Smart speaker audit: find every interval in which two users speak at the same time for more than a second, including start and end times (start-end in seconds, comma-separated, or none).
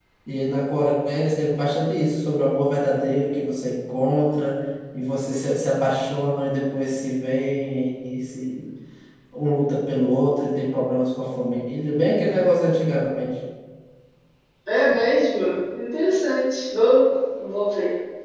none